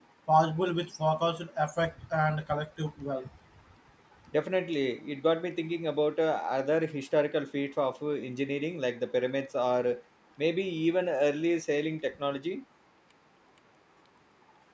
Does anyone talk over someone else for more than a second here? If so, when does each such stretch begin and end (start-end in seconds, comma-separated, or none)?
none